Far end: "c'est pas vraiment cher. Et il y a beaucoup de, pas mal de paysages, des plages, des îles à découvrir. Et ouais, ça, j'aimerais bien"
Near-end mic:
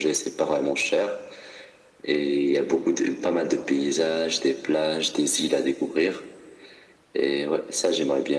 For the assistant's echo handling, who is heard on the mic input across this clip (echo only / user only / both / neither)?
echo only